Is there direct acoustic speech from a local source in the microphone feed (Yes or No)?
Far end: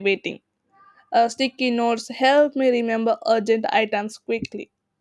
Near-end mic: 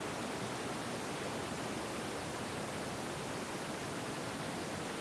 No